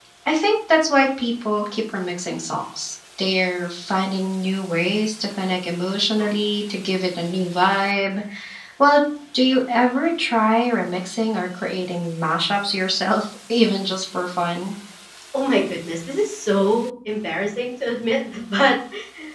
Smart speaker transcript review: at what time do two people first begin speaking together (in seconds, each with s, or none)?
none